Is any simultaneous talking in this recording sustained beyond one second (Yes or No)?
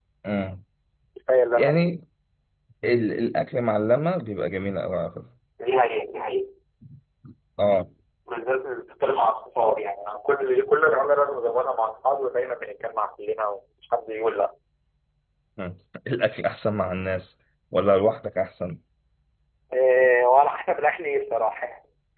No